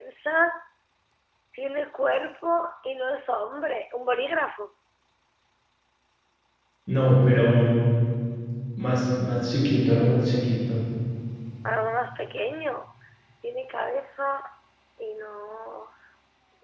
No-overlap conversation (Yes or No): Yes